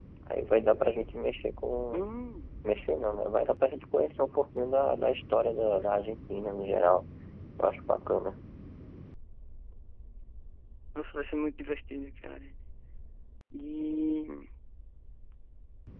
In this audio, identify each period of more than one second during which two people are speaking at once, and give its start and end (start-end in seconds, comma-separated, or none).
none